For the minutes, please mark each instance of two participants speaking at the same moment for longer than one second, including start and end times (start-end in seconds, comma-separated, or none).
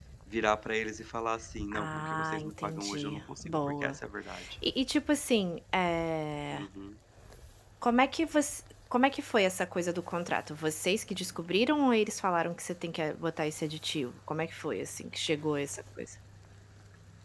1.7-4.0